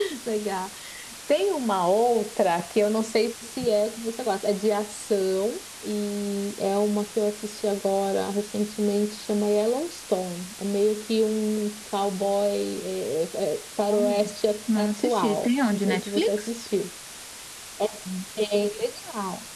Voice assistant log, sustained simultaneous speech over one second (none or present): present